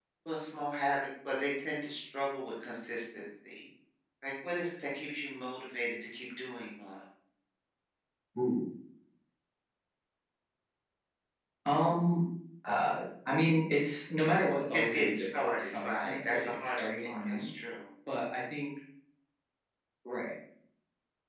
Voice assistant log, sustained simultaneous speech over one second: present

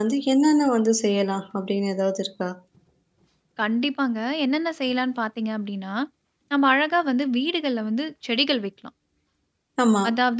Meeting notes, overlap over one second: none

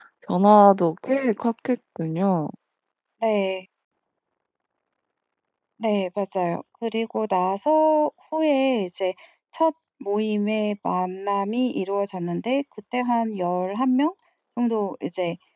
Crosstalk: none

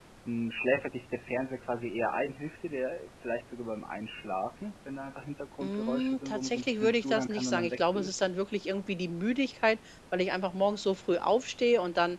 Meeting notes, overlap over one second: present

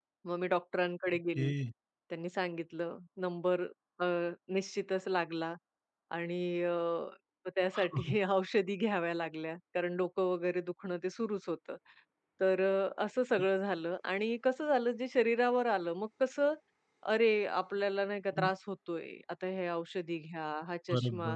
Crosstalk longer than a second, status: none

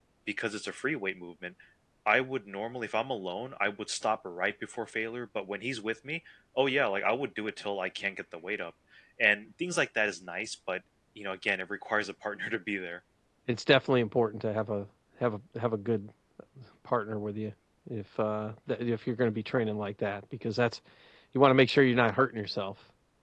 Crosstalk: none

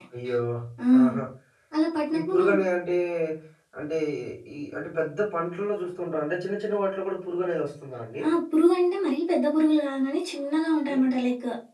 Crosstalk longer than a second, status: none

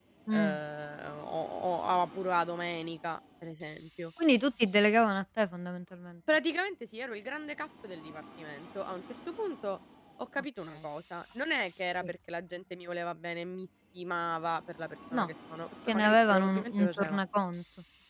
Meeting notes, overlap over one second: present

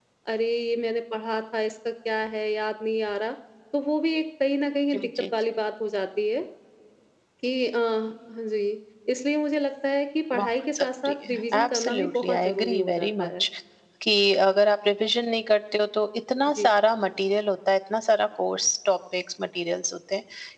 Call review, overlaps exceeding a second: present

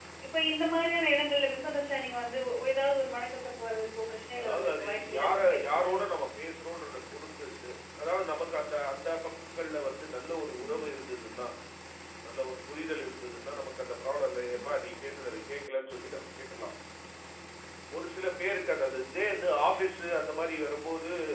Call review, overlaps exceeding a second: present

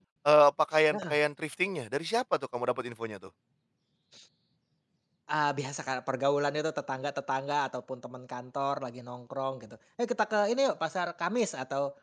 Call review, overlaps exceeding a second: none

